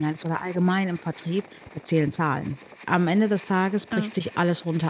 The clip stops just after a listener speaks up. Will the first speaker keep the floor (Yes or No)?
Yes